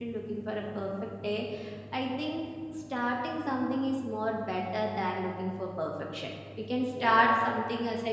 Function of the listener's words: listening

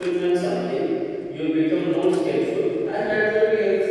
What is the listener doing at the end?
listening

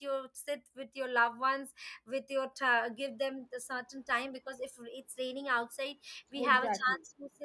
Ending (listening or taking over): listening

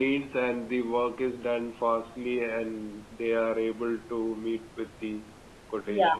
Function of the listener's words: taking over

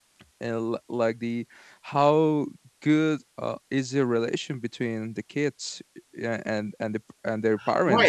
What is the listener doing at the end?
taking over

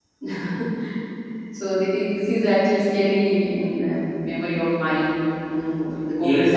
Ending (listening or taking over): taking over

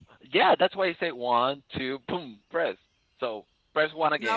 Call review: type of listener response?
taking over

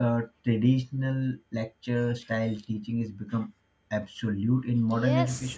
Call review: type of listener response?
taking over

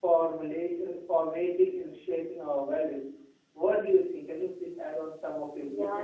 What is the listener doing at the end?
taking over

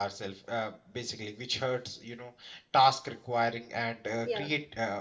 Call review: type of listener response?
listening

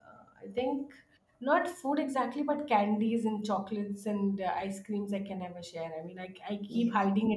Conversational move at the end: listening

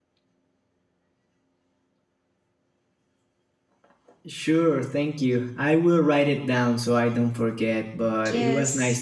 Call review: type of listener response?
taking over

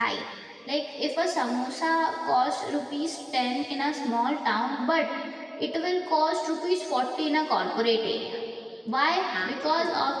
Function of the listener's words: listening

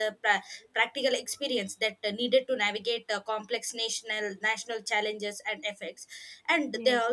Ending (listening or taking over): listening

